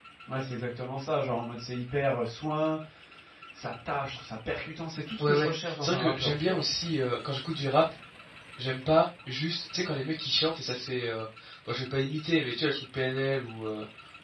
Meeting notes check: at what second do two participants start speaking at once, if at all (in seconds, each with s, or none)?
5.2 s